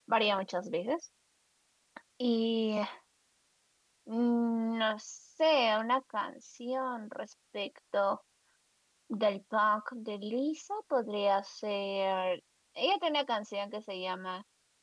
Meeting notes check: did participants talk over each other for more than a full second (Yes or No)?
No